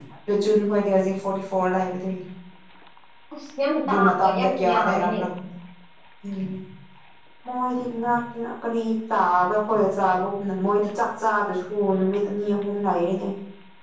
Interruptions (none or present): present